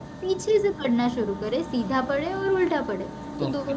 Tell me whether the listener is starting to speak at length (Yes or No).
No